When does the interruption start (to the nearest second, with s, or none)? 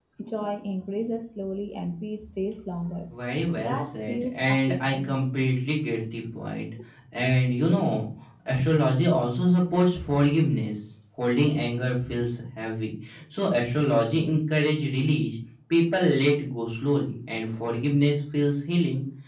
4 s